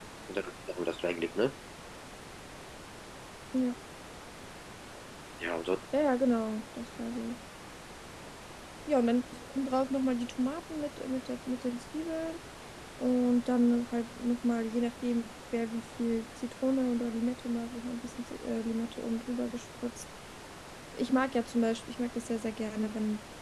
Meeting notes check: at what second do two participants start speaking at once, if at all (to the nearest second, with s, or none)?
none